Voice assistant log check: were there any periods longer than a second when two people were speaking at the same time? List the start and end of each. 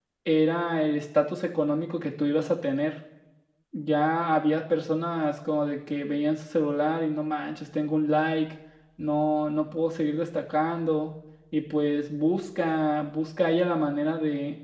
none

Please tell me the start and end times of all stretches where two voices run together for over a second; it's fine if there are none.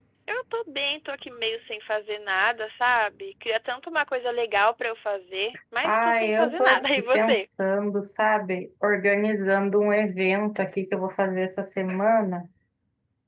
5.8-7.4

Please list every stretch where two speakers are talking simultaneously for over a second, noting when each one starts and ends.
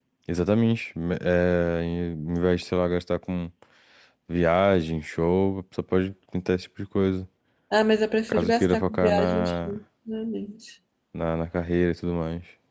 8.3-9.5

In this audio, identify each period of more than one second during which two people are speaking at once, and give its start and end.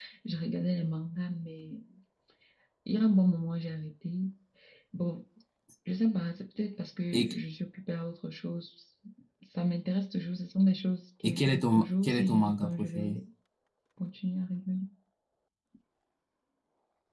11.2-13.2

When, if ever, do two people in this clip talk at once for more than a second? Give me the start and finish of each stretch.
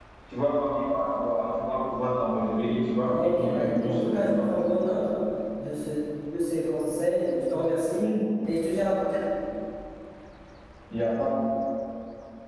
3.0-4.5

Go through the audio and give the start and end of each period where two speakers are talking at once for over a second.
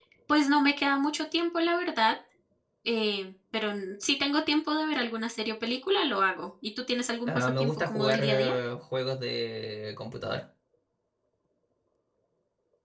7.3-8.6

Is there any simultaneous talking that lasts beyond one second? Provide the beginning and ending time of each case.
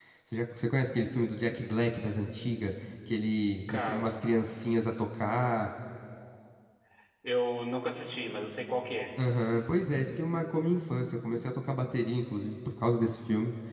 none

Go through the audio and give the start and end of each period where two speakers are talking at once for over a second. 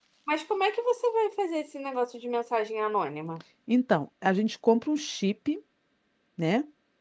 none

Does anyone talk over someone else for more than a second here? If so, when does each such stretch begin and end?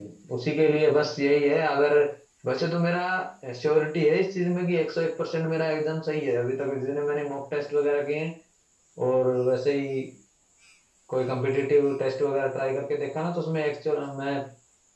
none

